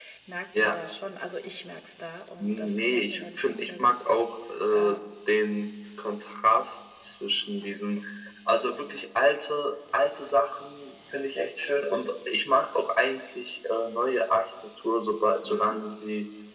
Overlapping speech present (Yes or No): Yes